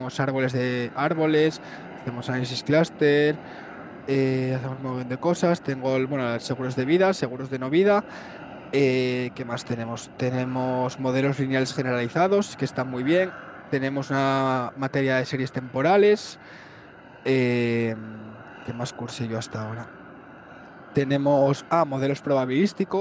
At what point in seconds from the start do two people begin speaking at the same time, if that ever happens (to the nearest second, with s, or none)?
none